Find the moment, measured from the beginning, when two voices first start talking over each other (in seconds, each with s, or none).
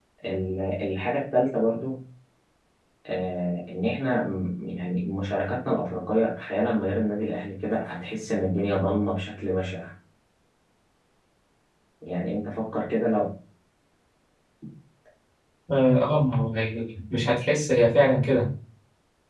none